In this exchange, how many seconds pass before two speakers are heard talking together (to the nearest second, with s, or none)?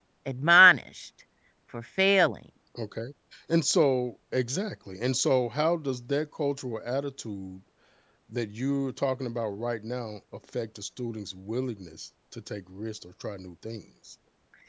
none